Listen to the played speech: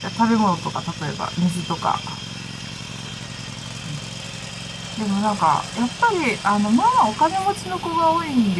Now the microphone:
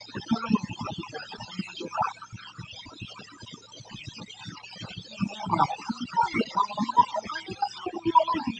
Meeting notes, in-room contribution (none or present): none